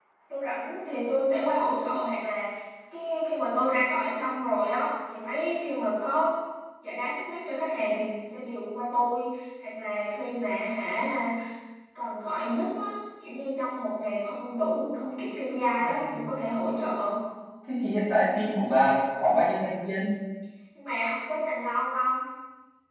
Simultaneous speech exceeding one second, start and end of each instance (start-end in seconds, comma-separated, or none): none